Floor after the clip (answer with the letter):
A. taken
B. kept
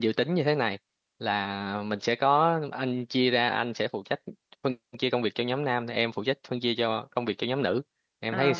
A